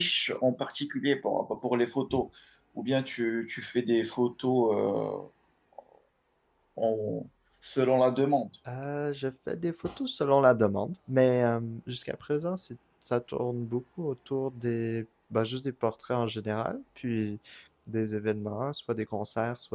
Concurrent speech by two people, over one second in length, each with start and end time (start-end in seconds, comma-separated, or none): none